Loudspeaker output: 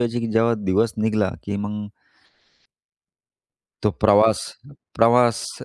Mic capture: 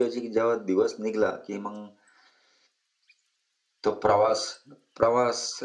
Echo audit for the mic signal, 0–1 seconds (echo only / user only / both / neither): echo only